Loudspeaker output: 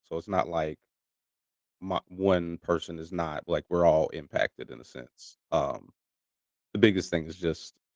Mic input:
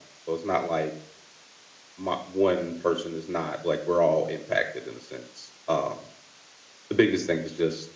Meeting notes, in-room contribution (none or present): none